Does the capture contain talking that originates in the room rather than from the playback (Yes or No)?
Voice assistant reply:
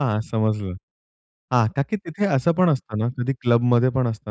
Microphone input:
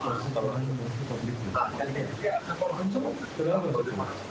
Yes